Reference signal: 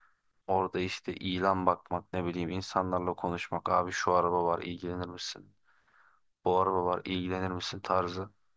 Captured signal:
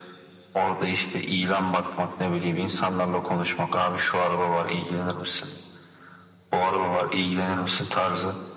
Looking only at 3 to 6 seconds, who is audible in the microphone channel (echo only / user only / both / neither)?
echo only